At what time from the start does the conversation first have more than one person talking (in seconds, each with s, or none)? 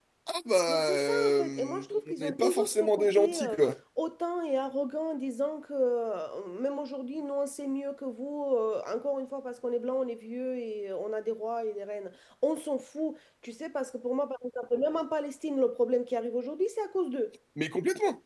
0.7 s